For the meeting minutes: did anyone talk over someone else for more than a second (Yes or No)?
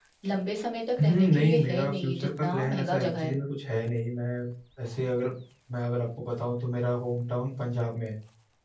Yes